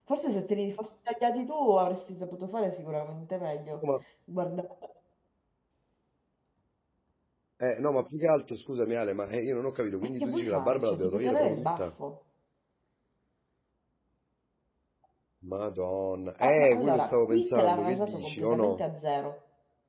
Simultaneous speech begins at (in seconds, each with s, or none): 10.2 s